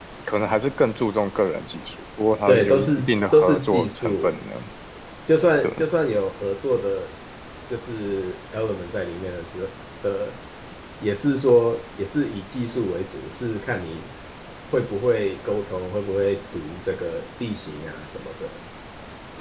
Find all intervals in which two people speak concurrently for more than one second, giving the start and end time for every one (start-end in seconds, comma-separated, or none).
2.5-4.3